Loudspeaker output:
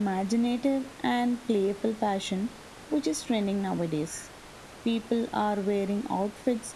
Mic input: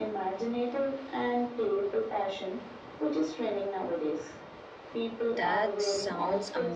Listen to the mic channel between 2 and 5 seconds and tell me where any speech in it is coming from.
echo only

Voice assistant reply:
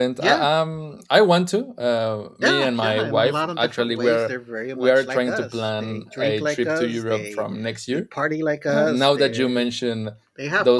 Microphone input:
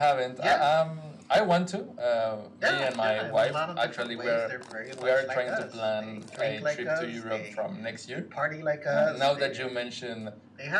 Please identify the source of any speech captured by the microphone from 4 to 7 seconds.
echo only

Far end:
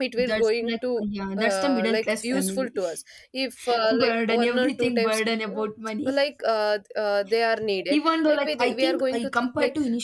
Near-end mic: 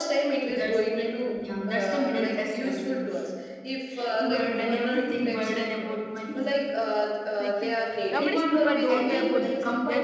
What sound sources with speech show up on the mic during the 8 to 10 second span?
both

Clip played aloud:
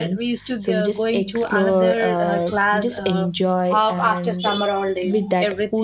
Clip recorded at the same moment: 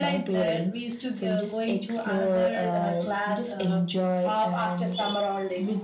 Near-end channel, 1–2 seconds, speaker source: echo only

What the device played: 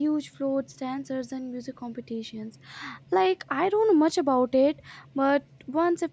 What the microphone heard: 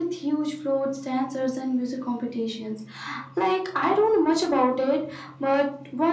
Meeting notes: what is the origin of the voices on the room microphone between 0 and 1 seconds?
echo only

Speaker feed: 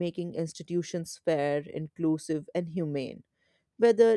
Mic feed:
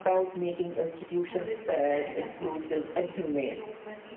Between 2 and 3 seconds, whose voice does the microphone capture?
both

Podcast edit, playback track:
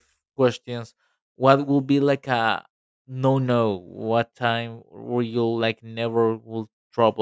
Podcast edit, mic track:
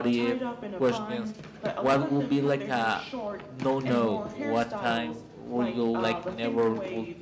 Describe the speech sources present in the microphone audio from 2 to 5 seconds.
both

